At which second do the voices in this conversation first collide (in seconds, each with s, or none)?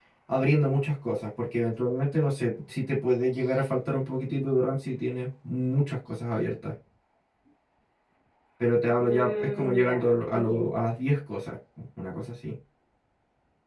9.0 s